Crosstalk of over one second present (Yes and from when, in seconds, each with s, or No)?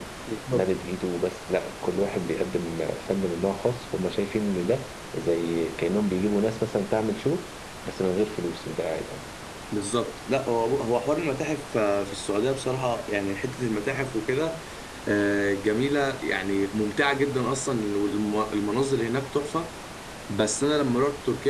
No